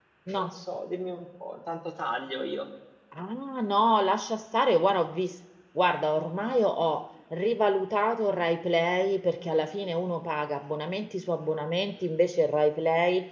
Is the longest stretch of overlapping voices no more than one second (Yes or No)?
Yes